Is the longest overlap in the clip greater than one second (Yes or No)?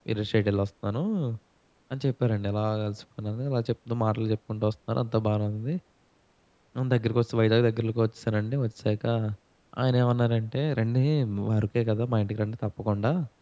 No